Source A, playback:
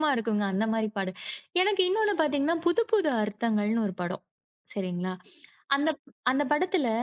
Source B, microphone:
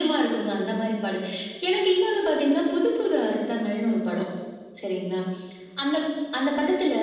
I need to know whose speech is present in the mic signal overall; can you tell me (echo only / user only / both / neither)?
echo only